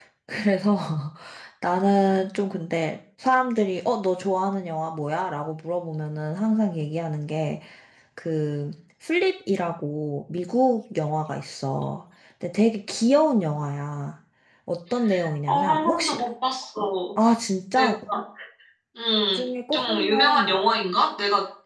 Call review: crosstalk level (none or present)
present